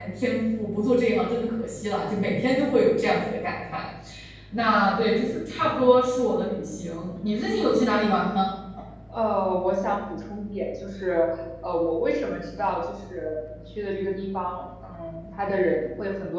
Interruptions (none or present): none